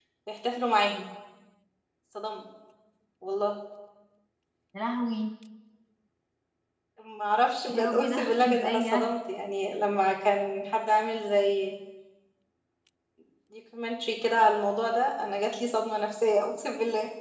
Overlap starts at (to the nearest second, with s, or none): 8 s